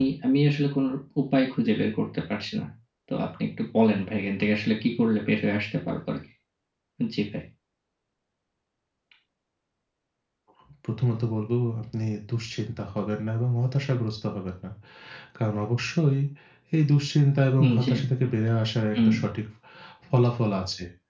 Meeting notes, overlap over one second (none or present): none